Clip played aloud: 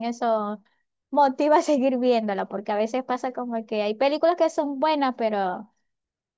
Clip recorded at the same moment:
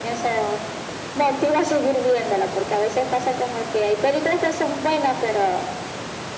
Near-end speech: none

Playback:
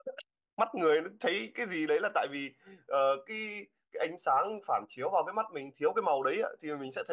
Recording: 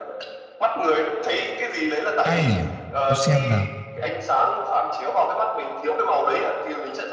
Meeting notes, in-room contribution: present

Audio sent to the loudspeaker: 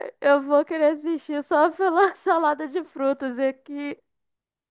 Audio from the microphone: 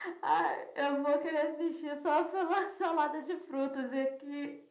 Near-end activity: none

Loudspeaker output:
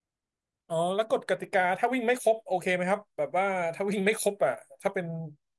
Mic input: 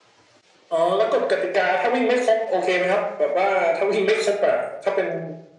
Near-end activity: none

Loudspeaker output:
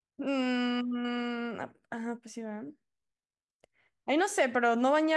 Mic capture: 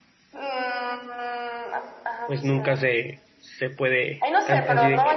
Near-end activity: present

